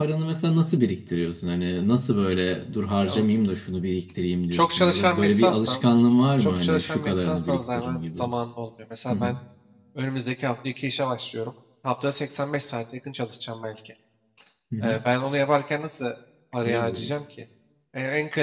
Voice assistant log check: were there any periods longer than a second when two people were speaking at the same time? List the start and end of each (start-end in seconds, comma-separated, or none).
4.5-5.8, 6.4-8.2